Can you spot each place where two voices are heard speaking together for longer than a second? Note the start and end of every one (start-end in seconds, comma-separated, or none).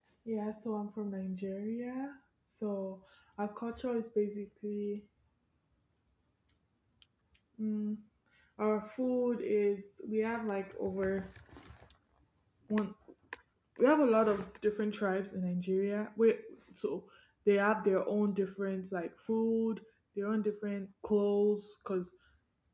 none